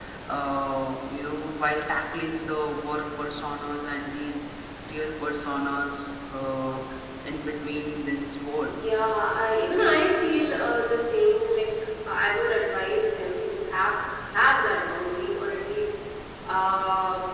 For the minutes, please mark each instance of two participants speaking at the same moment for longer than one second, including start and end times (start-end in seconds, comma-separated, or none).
none